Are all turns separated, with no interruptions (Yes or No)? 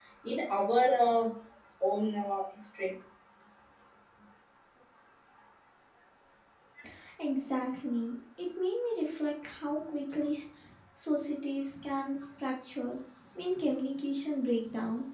Yes